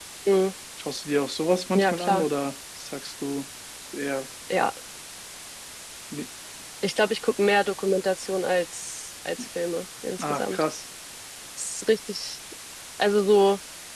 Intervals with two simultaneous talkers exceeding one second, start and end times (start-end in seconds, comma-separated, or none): none